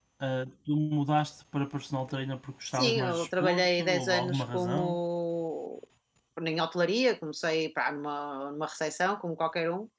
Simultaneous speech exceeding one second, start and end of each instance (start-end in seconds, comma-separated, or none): 2.7-5.0